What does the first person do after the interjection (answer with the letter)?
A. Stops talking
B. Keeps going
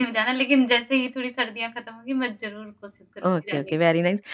A